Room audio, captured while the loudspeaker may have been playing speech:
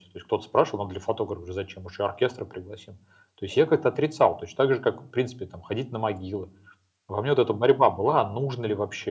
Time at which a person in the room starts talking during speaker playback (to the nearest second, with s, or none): none